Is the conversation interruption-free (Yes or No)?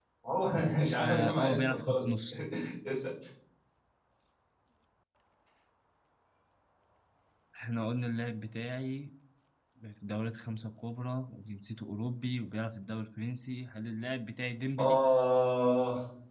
No